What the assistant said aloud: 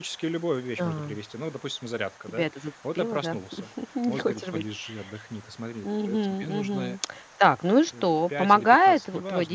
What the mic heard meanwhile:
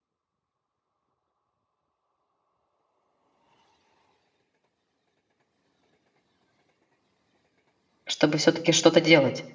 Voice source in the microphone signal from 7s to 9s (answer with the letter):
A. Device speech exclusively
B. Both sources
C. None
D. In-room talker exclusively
D